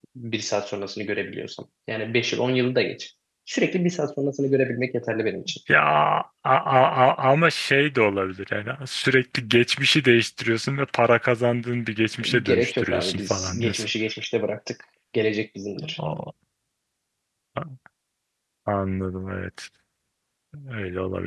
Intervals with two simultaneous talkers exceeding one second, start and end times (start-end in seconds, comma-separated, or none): 12.4-13.9